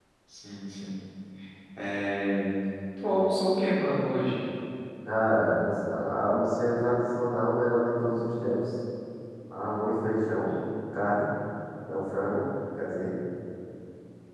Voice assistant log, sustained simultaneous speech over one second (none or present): none